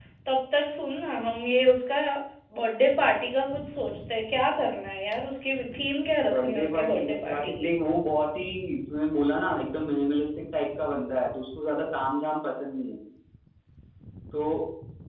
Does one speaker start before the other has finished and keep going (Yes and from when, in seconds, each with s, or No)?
Yes, from 6.2 s